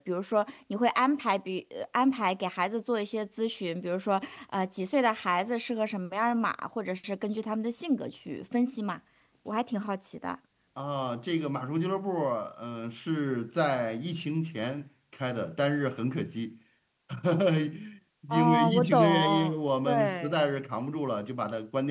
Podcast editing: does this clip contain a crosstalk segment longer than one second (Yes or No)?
Yes